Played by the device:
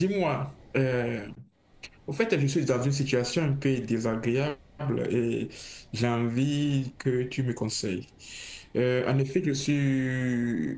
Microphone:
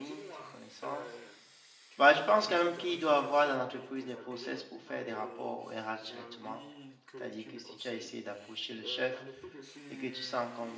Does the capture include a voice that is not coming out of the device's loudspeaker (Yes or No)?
Yes